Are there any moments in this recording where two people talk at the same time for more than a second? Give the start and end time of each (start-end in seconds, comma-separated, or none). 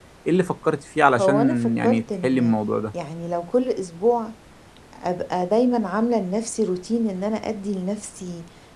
1.2-2.5